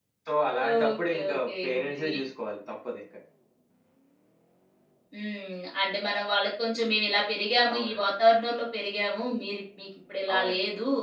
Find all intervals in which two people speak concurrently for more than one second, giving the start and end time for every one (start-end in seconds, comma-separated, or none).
0.7-2.0